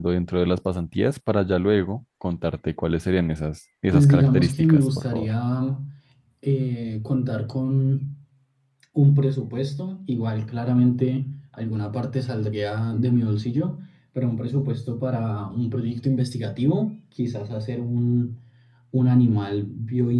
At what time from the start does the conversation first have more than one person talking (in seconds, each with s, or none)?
3.9 s